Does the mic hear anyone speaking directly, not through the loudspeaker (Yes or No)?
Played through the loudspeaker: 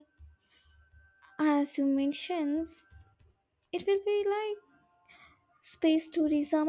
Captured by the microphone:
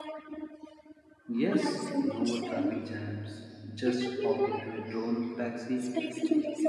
Yes